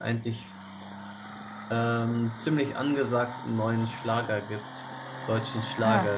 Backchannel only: Yes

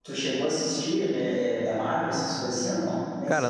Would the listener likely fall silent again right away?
No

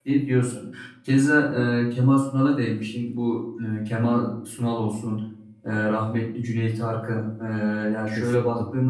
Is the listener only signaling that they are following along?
Yes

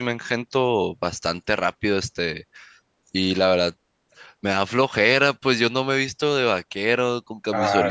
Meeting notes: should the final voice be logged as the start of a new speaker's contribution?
No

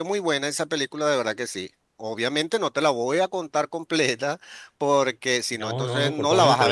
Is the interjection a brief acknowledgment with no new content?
No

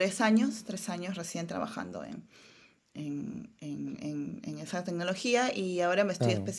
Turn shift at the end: No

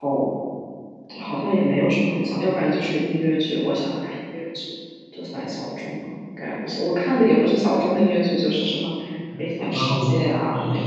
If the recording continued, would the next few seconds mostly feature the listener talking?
Yes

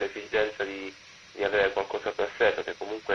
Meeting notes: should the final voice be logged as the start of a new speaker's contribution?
No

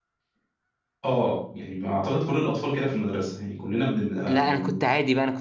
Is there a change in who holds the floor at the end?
Yes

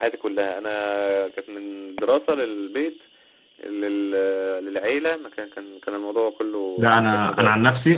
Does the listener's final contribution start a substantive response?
Yes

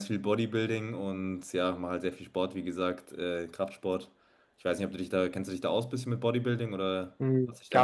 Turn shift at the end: Yes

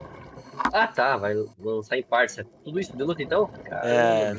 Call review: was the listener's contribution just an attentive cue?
No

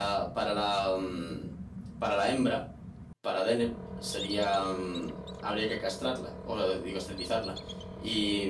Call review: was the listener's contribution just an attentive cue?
Yes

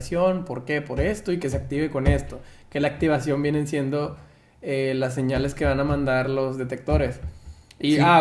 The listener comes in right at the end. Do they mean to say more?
No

